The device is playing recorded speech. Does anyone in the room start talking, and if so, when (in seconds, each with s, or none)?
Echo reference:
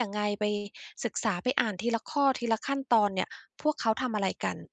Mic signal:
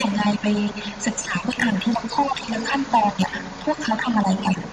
none